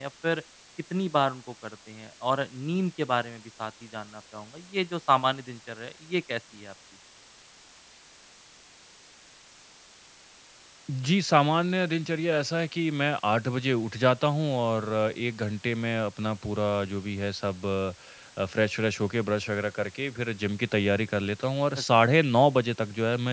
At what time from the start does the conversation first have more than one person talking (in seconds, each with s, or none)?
none